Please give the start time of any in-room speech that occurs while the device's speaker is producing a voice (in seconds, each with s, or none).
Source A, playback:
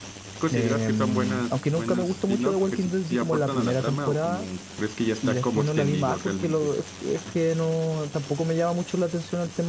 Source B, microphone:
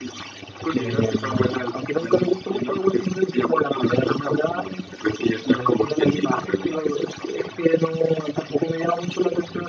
none